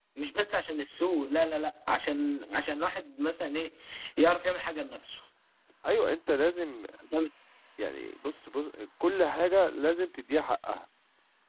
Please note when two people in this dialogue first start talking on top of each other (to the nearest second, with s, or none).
none